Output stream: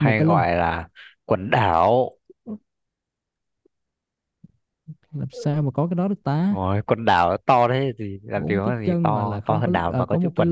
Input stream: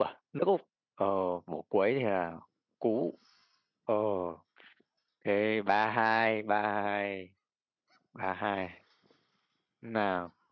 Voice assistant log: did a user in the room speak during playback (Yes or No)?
Yes